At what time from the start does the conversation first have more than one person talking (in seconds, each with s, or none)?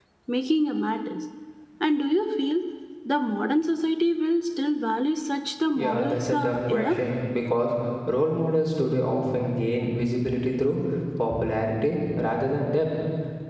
5.8 s